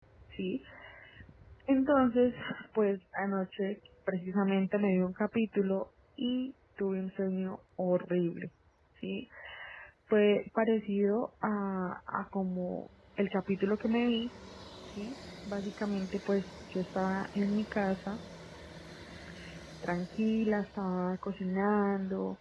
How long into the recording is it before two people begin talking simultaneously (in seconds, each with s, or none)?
none